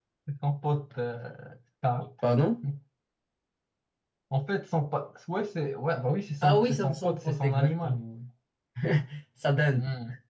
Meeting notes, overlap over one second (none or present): present